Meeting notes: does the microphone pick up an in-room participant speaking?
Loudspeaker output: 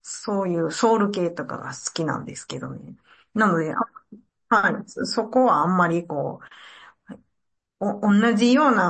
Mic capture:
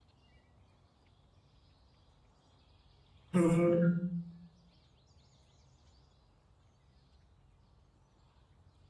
Yes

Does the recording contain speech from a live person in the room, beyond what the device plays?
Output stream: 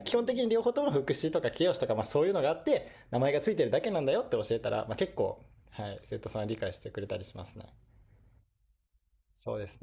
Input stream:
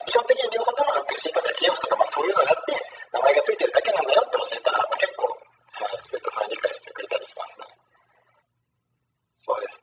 No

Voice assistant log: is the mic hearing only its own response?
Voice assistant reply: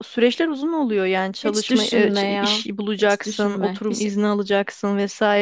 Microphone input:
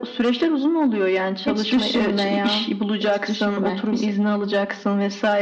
Yes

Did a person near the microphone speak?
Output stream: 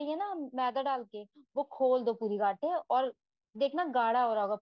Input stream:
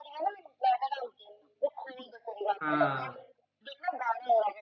Yes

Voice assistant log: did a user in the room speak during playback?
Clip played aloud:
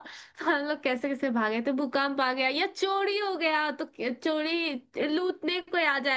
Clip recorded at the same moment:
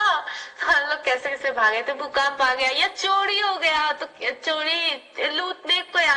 No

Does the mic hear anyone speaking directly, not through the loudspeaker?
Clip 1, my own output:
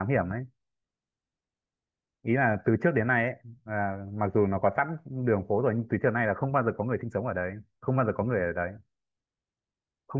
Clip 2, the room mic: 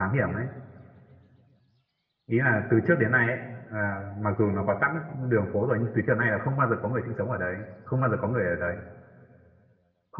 No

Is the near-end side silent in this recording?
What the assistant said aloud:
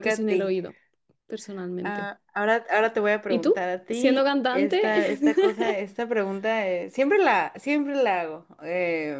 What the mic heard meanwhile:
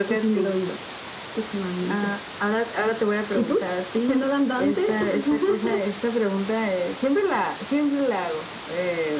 Yes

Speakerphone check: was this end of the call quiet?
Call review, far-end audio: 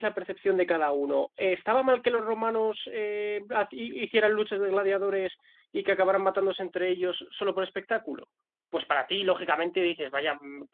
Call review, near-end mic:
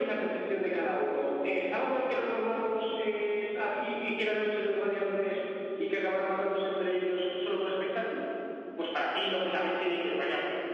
Yes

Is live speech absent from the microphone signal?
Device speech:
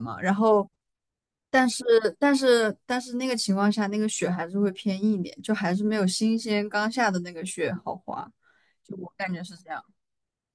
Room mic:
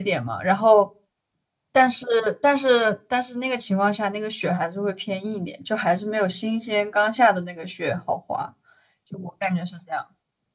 Yes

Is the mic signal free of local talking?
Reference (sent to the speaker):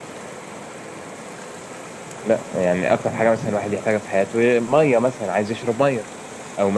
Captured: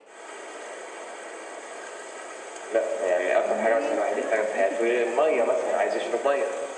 No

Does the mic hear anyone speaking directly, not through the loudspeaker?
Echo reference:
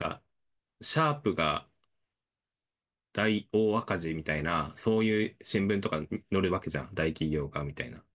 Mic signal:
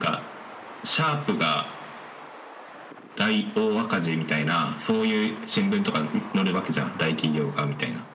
No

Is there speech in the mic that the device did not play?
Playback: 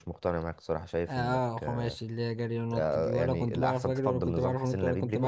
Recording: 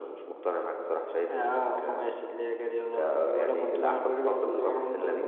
No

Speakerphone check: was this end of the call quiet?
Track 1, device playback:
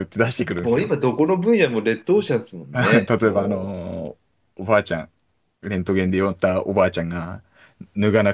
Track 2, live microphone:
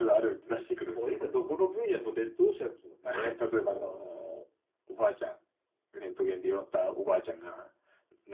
Yes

